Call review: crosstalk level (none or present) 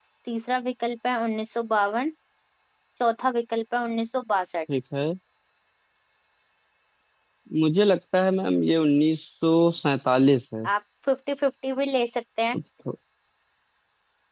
none